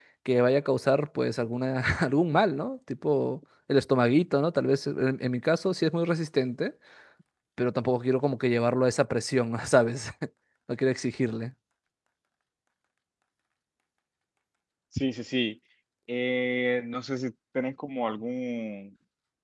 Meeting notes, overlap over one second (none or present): none